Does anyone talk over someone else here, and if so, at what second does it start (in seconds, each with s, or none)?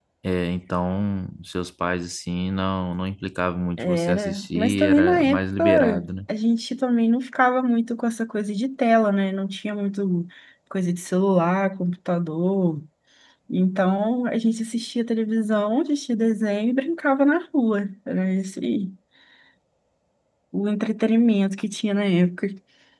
3.8 s